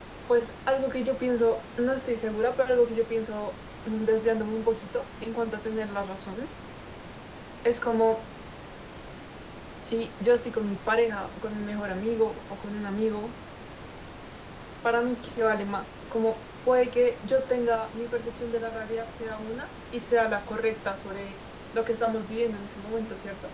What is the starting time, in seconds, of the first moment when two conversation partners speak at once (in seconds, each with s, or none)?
none